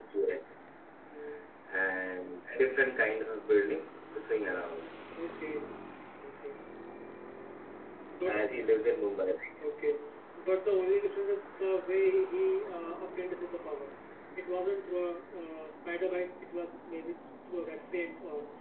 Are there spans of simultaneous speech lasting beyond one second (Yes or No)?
No